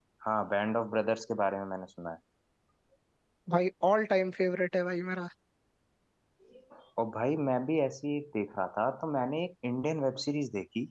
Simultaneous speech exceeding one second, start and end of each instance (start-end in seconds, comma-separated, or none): none